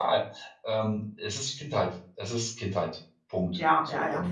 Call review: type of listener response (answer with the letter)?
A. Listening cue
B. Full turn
B